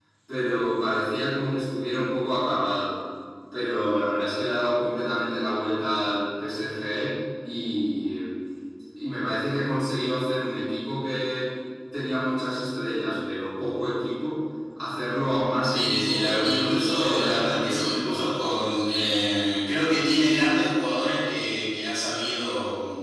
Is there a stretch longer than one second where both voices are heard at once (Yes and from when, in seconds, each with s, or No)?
Yes, from 15.6 s